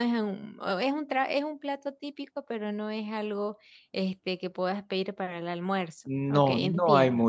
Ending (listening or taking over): taking over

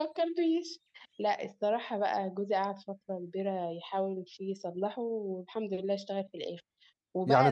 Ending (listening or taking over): listening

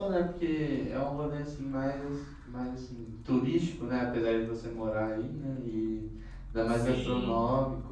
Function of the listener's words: listening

